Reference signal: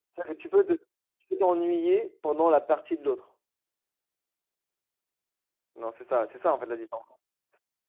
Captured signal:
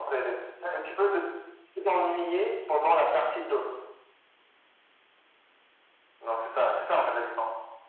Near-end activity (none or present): none